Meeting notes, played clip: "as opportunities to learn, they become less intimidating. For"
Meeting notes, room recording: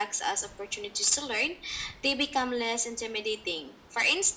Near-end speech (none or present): none